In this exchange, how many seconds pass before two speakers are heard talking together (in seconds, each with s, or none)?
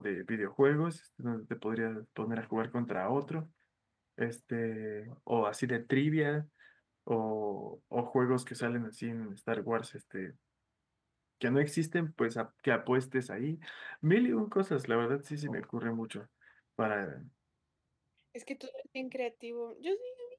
none